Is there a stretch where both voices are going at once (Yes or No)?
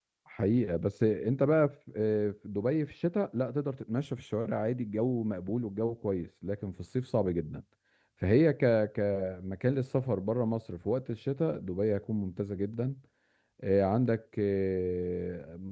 No